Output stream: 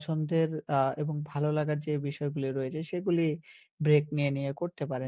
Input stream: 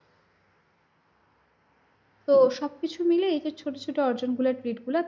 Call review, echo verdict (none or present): none